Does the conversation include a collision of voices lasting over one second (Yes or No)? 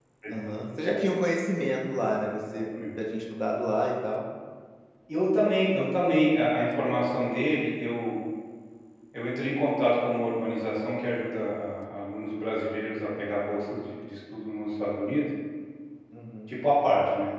No